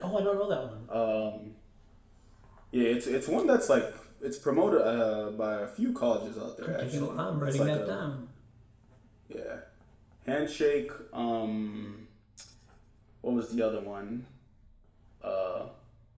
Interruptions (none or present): present